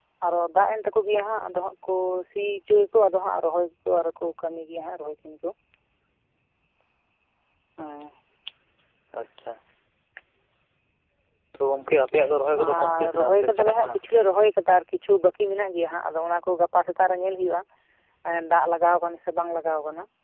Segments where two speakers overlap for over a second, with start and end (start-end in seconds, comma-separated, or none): 12.6-14.0